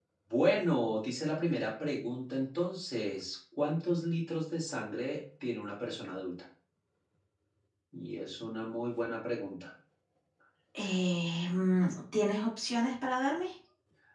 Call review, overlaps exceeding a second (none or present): none